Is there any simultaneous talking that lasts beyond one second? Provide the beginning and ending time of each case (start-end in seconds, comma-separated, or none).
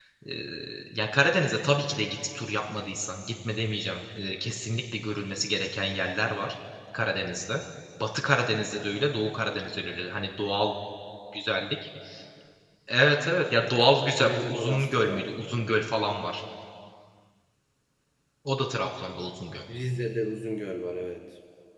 14.2-16.1